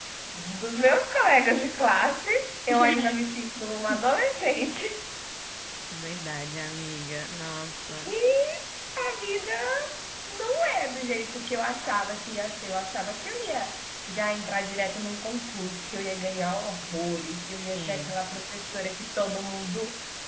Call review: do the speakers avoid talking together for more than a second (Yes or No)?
Yes